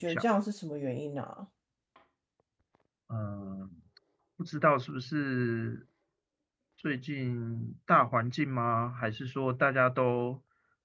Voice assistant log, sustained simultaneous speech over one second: none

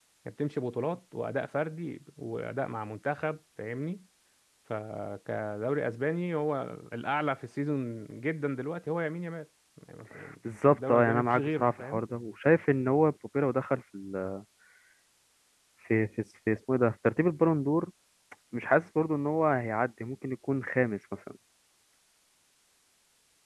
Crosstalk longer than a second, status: present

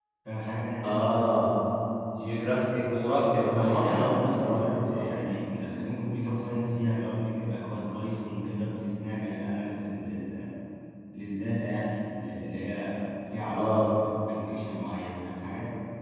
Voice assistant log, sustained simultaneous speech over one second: present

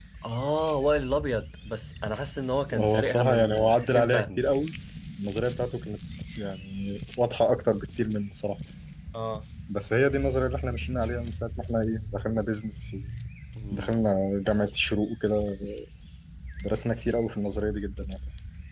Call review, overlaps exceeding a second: present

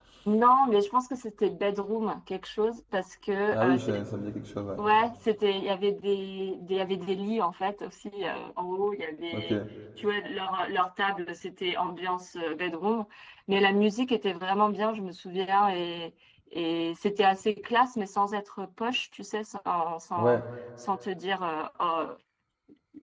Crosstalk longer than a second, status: none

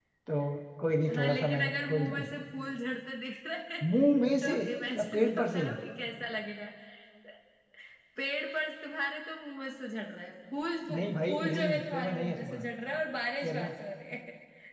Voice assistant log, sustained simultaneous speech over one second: present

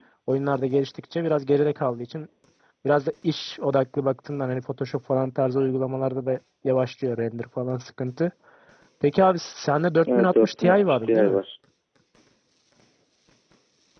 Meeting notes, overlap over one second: present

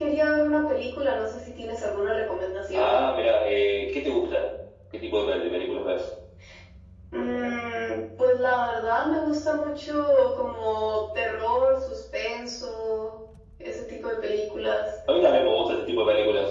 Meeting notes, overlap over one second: none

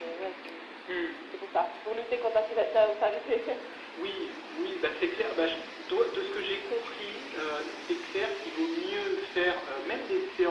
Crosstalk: none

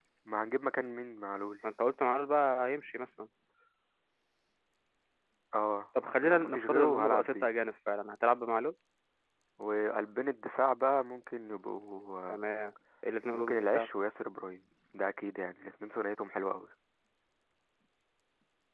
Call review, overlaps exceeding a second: present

